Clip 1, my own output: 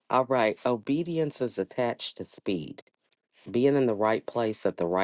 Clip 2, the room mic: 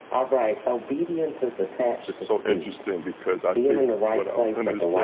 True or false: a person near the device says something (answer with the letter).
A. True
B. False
A